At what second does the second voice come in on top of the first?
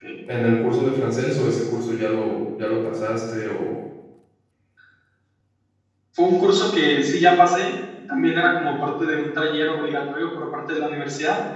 none

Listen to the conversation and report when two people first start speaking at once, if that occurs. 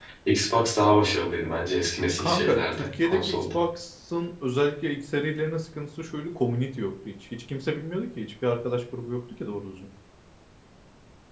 2.2 s

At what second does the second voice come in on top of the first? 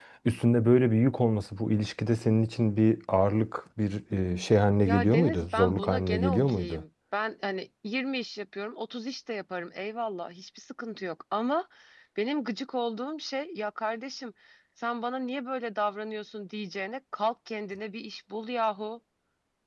4.9 s

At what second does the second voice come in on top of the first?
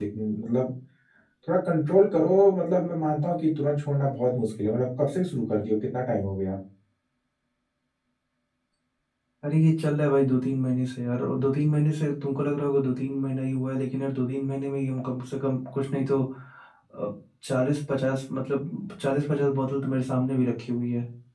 none

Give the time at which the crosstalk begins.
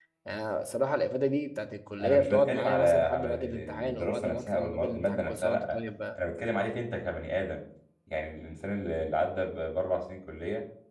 2.0 s

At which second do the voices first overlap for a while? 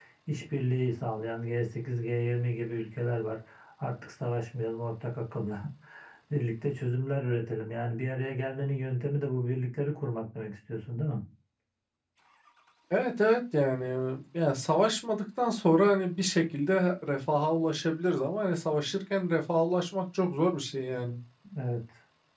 none

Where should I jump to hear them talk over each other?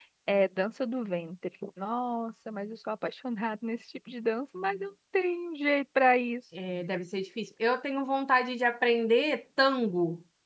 none

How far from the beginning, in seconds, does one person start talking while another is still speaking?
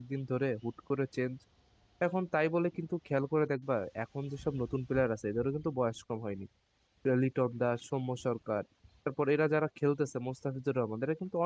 none

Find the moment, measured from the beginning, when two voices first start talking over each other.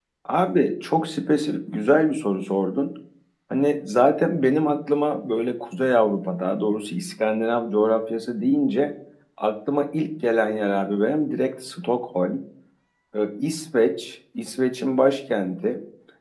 none

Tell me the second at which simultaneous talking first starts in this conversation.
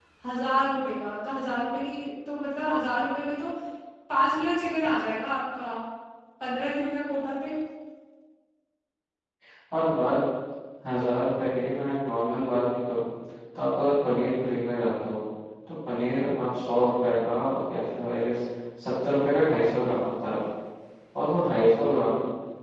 none

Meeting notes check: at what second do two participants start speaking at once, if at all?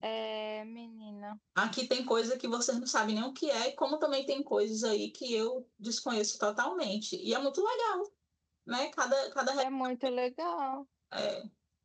none

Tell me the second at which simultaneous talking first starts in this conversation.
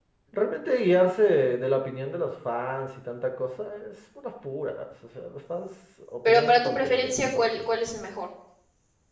6.2 s

